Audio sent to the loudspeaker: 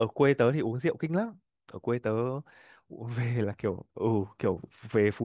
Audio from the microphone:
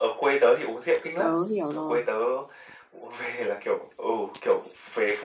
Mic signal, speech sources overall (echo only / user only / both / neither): both